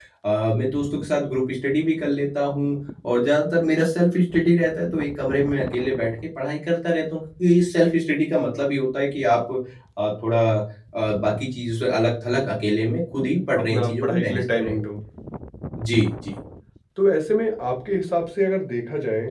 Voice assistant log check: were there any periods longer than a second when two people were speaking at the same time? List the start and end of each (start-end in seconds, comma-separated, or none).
13.6-14.8